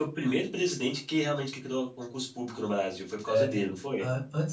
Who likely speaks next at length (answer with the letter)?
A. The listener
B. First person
A